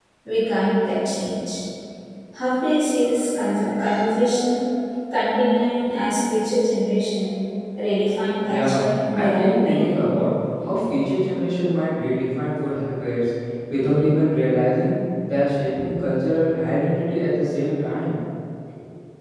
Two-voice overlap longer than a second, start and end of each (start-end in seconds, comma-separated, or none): 8.4-9.8